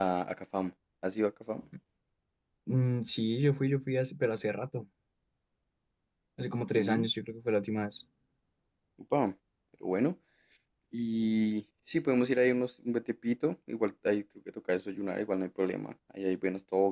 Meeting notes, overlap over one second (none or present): none